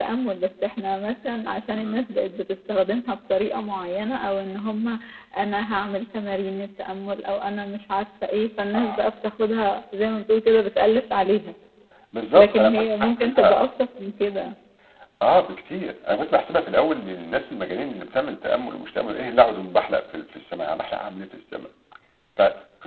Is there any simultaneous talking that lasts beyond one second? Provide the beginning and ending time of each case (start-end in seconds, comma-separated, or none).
12.3-13.6